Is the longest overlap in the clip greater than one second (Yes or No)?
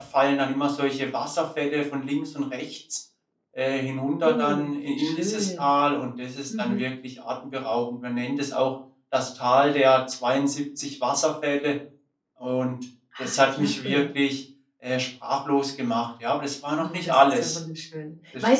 Yes